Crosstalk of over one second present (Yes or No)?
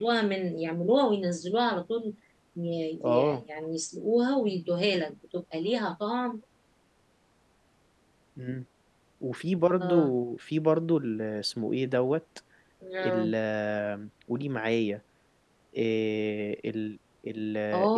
No